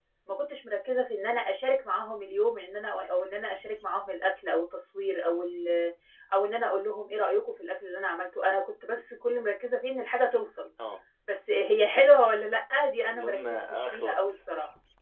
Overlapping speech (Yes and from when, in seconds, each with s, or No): Yes, from 13.1 s